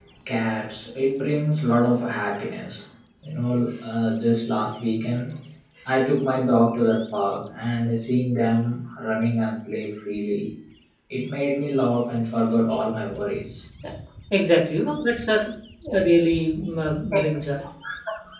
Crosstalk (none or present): none